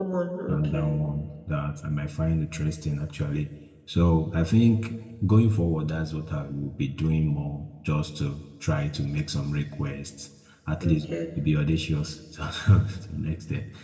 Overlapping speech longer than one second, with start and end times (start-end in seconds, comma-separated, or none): none